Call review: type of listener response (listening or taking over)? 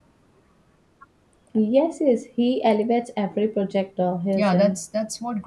taking over